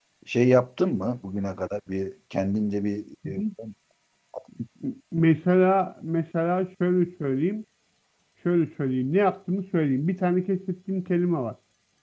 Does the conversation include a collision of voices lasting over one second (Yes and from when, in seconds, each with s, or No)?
No